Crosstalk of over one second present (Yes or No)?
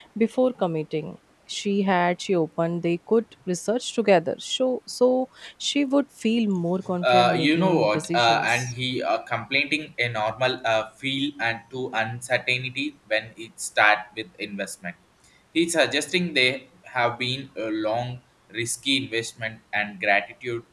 Yes